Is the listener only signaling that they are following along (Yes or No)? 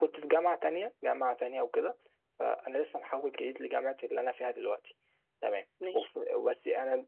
Yes